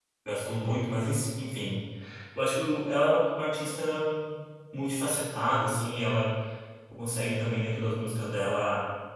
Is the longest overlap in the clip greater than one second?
No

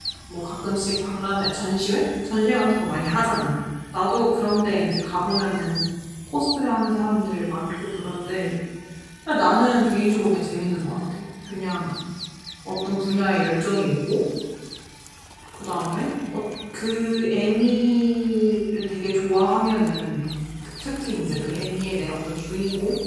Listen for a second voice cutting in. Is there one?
No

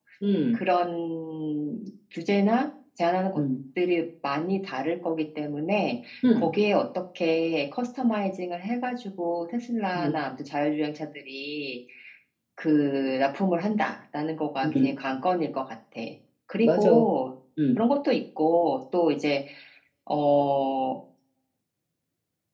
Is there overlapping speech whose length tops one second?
No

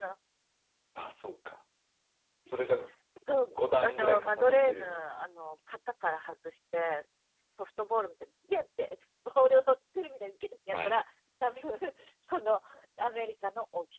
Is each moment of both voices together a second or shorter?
No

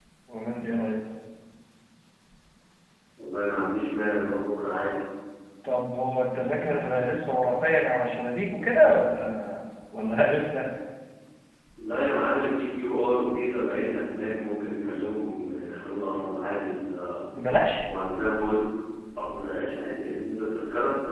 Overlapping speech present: No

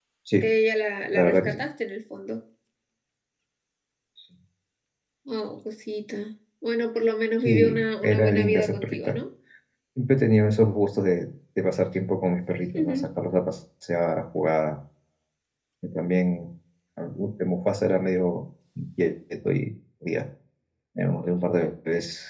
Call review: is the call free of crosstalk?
No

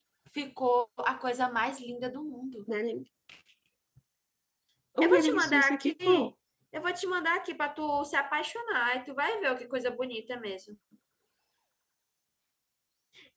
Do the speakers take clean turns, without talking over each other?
No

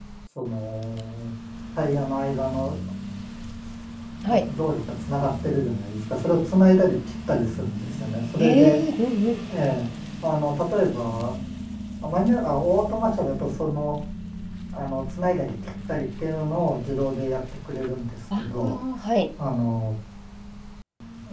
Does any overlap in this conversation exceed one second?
No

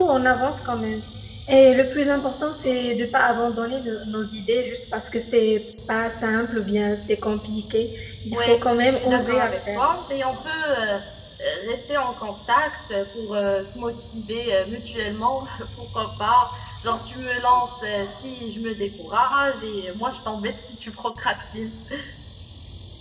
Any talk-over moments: Yes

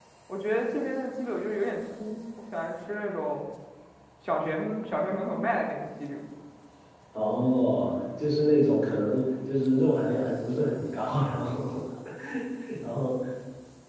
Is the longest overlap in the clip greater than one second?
No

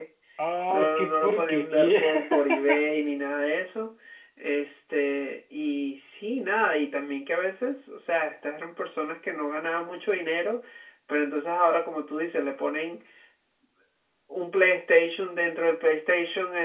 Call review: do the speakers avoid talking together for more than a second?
No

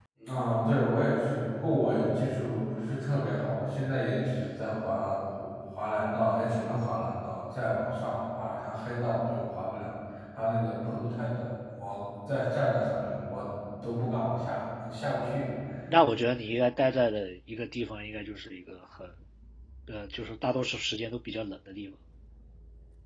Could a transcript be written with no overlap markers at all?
Yes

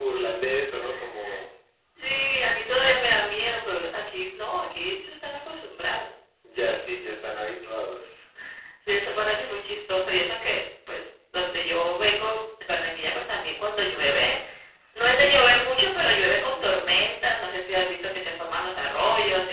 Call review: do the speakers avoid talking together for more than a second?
Yes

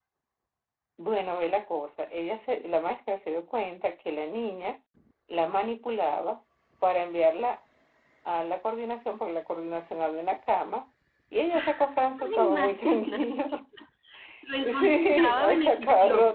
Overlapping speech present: Yes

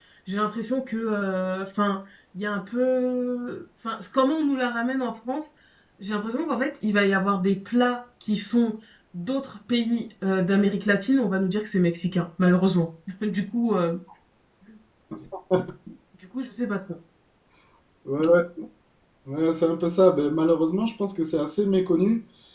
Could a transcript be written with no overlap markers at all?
Yes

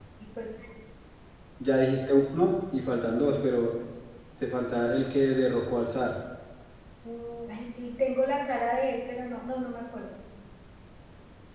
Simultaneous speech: No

